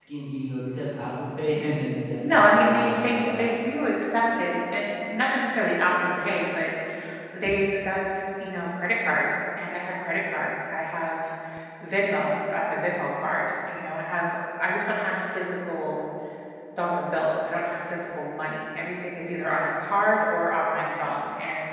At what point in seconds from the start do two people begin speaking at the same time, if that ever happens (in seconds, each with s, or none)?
2.2 s